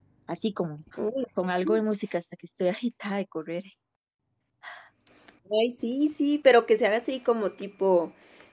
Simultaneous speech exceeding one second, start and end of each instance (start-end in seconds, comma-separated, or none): none